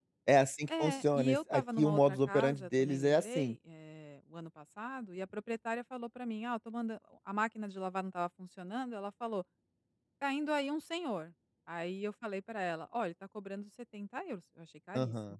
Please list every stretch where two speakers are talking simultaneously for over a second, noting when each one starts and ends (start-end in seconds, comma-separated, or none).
0.8-3.6